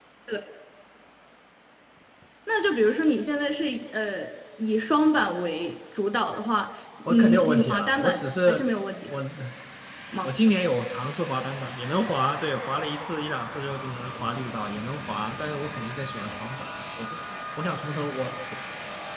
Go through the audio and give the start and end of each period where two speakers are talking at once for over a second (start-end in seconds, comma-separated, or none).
7.1-8.6